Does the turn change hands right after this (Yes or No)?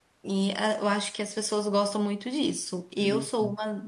No